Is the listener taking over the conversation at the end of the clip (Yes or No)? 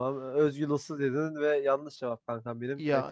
No